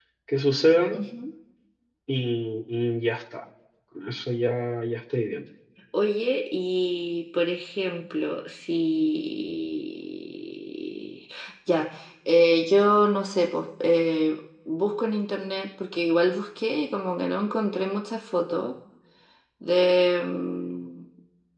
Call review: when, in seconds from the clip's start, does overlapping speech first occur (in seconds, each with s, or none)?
none